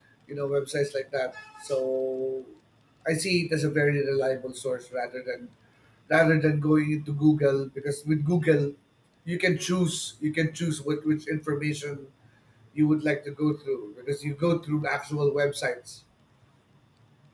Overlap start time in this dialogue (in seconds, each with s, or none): none